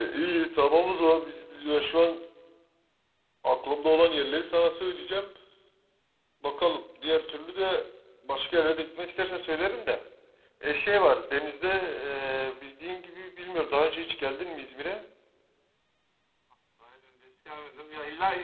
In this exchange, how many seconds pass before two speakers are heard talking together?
none

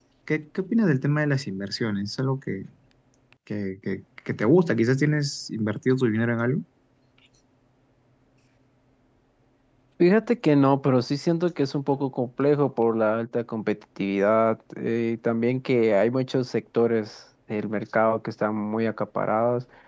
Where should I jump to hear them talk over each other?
none

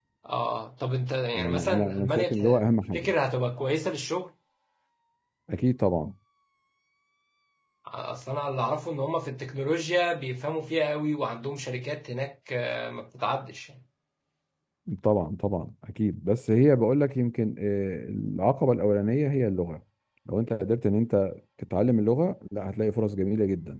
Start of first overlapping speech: 1 s

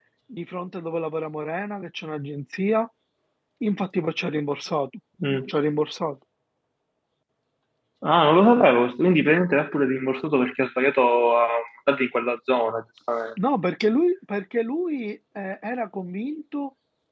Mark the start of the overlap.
none

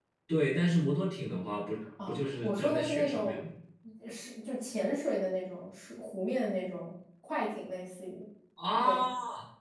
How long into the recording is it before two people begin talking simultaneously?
2 s

